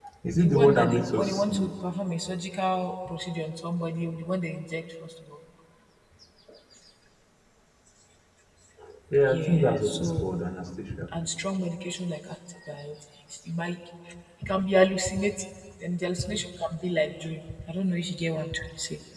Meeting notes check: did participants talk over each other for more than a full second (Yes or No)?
Yes